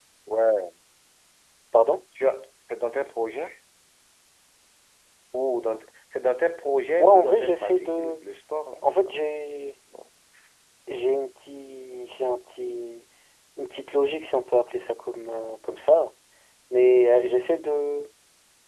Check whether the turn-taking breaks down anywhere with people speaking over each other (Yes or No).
Yes